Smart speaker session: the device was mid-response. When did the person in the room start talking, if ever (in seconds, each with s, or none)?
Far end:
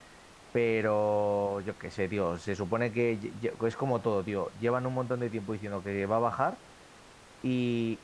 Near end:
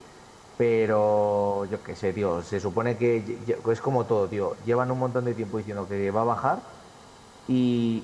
none